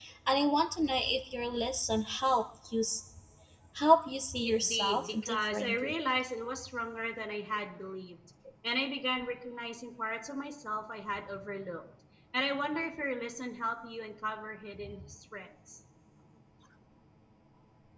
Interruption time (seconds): 4.5 s

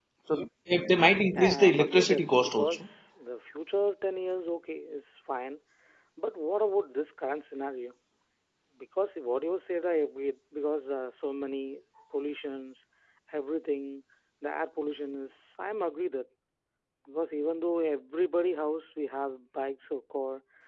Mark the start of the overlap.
1.3 s

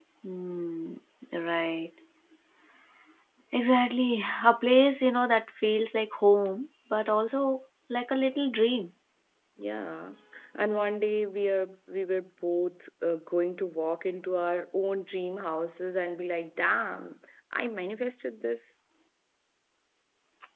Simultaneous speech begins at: none

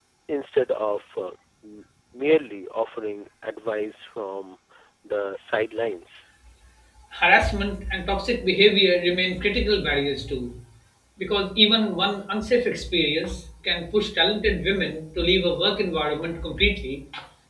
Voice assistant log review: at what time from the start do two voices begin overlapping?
none

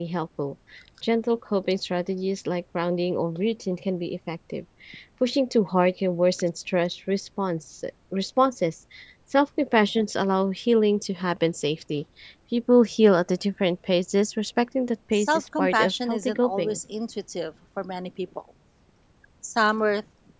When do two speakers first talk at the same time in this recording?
15.1 s

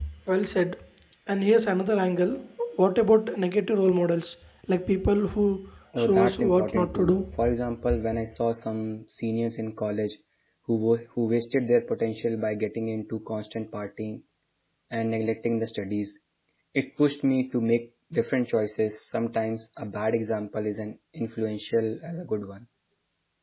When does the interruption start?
5.9 s

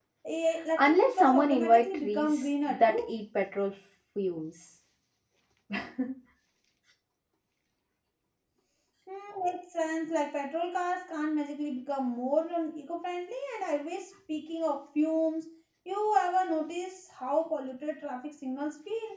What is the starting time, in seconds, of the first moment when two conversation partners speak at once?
0.8 s

